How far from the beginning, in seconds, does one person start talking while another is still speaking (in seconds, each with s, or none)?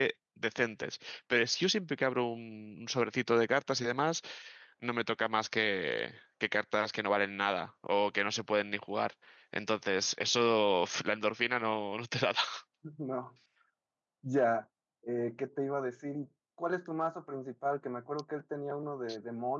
none